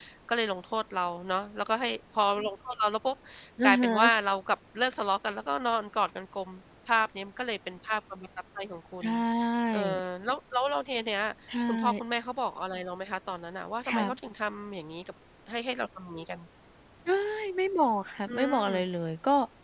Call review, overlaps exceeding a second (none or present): none